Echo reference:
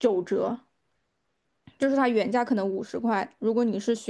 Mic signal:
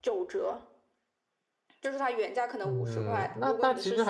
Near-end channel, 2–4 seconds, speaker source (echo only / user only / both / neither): both